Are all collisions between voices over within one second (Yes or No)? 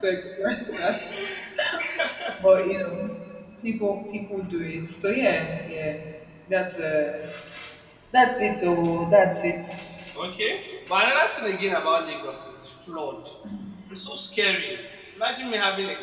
Yes